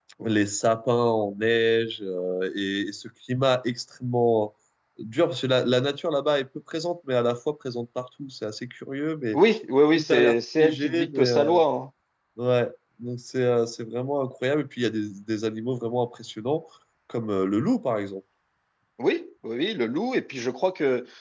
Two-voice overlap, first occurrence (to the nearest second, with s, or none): 10 s